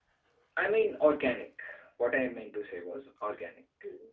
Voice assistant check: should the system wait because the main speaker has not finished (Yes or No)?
Yes